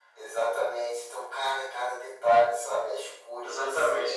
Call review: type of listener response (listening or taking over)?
taking over